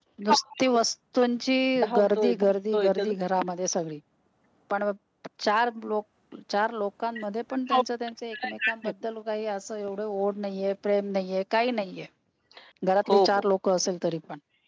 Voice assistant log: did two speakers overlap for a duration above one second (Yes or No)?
Yes